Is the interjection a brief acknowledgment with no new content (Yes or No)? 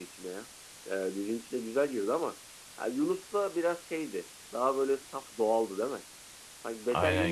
Yes